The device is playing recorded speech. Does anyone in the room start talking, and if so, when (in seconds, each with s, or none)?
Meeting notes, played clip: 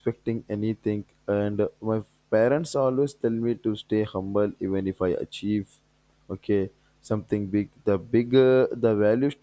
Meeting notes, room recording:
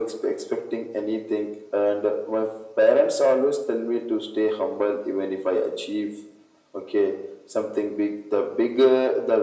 none